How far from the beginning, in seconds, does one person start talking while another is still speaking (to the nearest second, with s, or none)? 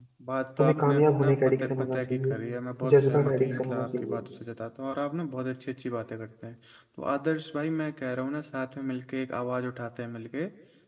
1 s